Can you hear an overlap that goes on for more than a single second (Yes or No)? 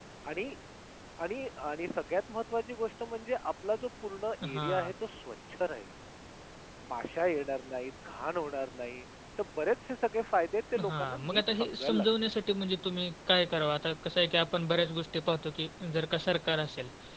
Yes